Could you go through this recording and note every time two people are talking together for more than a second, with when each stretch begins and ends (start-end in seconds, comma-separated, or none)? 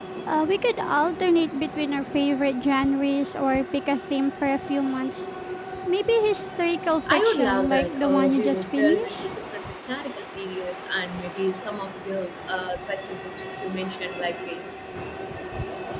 7.1-9.3